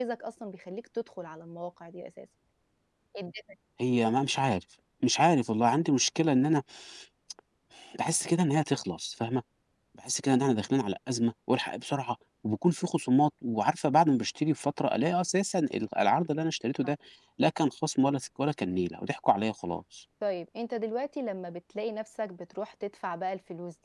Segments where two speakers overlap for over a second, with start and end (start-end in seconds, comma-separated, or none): none